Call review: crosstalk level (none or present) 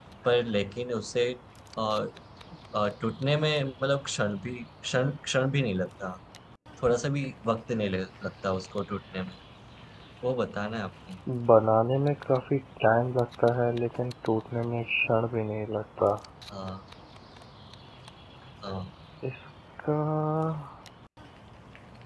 none